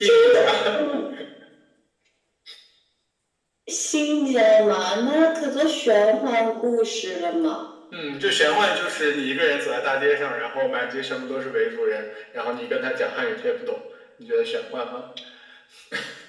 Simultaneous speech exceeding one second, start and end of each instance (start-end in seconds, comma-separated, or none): none